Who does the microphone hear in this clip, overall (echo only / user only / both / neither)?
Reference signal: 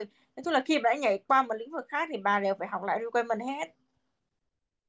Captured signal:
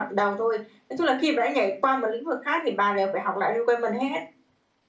echo only